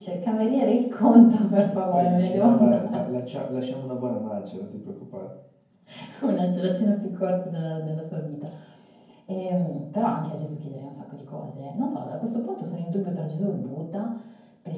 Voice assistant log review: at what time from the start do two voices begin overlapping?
1.6 s

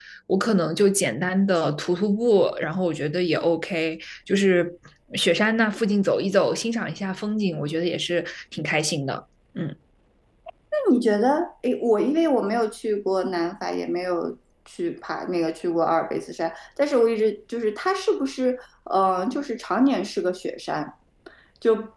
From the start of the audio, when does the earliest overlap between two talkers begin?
none

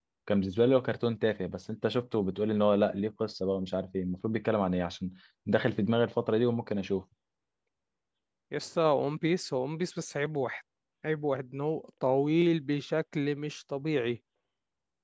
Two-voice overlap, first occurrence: none

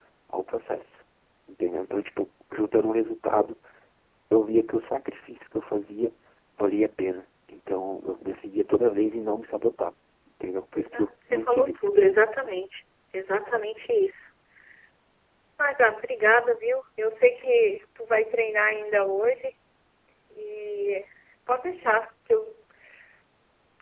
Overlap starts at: 10.8 s

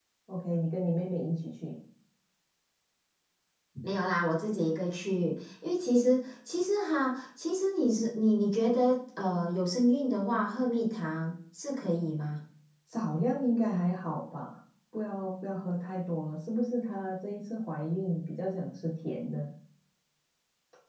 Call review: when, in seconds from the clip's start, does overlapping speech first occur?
none

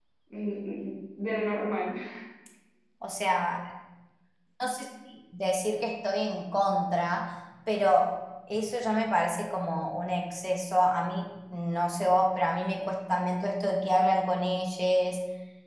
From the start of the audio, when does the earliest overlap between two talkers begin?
none

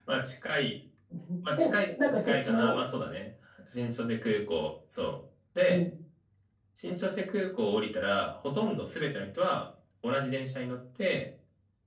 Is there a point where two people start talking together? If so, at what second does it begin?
1.6 s

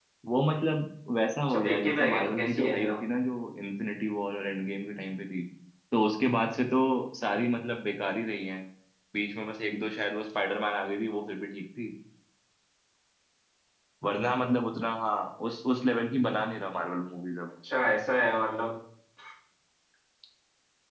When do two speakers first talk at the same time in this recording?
1.5 s

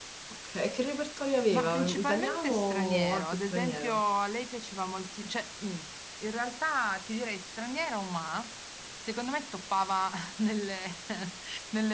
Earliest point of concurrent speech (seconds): 1.5 s

